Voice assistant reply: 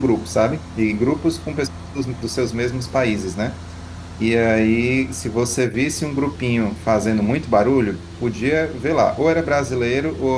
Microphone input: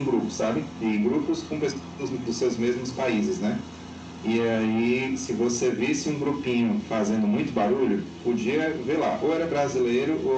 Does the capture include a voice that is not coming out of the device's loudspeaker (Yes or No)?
No